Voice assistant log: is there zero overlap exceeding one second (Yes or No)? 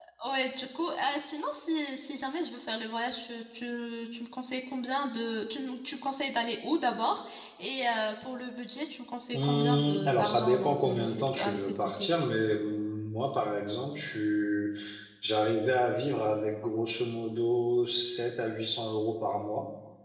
No